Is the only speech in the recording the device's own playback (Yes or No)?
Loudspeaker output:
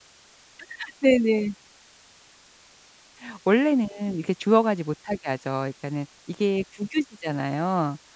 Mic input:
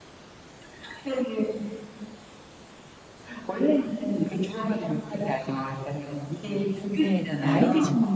No